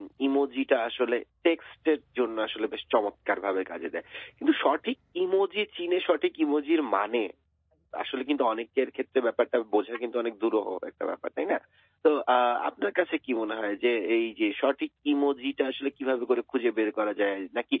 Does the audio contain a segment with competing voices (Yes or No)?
No